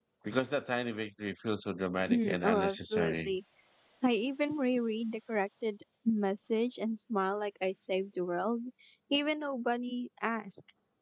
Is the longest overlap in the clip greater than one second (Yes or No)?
Yes